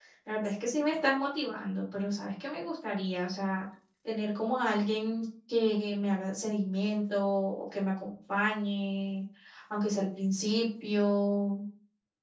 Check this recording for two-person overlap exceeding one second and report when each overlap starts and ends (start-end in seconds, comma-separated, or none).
none